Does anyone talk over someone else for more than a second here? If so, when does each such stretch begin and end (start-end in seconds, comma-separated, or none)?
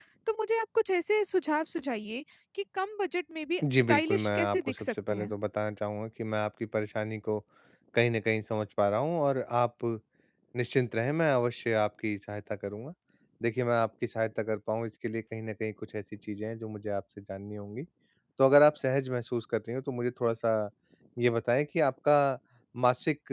3.8-5.3